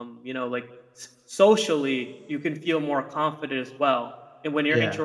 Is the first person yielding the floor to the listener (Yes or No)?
No